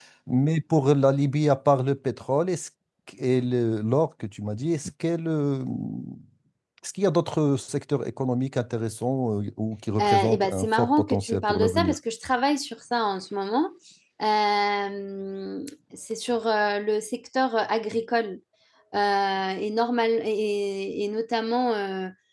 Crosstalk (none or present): present